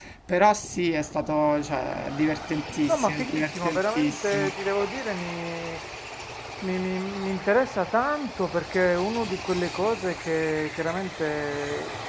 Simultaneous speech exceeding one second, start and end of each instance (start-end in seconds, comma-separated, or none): 2.9-4.5